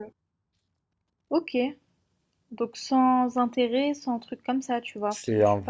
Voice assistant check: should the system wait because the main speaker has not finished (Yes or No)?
No